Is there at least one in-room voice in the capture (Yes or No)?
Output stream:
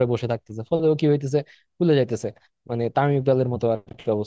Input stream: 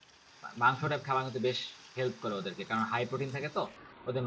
Yes